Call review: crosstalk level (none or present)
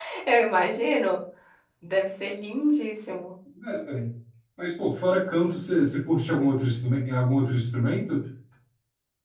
none